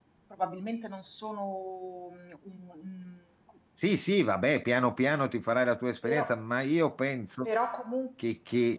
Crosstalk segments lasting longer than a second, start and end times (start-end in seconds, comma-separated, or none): none